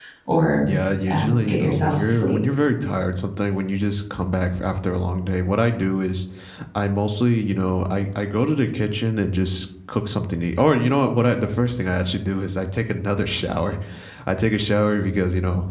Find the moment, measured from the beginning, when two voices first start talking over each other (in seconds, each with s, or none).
1.1 s